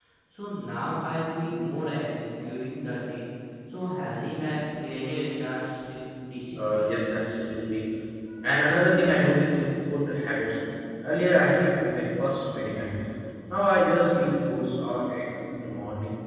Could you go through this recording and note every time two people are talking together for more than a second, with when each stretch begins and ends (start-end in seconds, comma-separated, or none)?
none